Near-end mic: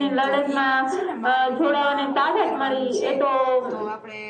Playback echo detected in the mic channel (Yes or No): Yes